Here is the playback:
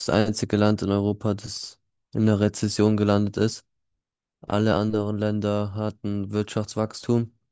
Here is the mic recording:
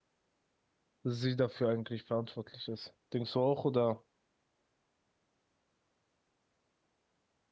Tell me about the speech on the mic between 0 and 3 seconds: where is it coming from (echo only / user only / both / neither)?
user only